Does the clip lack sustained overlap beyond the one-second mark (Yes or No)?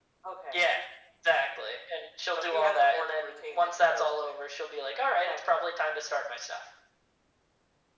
No